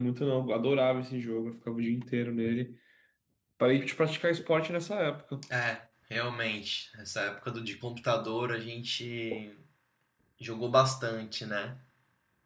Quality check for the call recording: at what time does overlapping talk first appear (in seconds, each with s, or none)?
none